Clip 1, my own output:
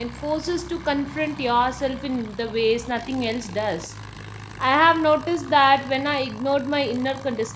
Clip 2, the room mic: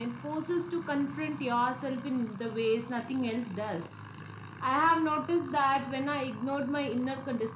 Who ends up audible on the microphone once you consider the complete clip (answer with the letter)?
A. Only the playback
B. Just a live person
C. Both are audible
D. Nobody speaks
A